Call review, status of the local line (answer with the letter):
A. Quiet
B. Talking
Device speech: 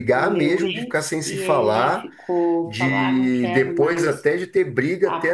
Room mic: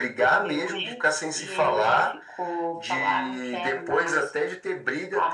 A